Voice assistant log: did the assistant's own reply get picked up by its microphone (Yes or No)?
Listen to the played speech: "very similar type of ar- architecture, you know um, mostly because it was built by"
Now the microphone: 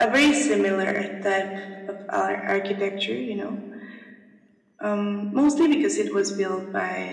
Yes